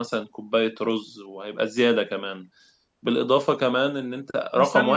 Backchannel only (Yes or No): No